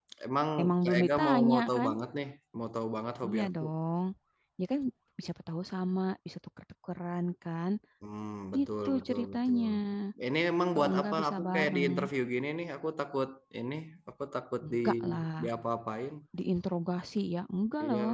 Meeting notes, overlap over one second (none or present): present